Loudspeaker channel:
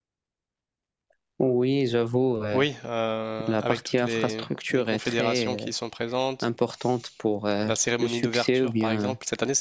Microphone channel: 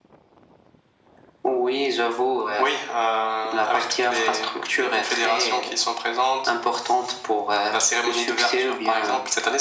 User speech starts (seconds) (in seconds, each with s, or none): none